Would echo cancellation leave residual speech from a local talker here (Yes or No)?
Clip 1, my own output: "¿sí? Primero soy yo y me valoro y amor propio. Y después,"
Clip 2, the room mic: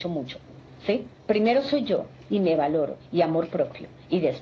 No